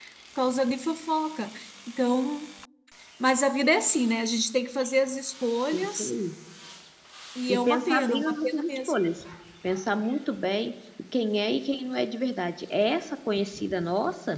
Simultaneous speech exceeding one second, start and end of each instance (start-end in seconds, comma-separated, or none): 7.5-8.9